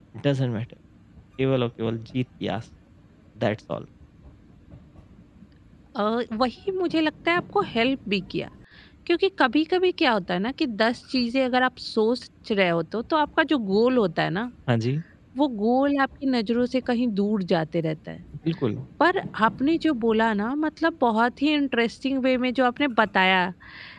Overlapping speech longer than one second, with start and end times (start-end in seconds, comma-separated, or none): none